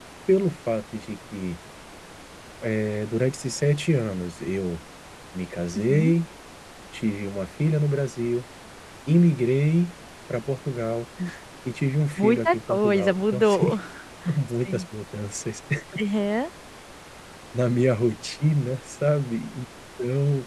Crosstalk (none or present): present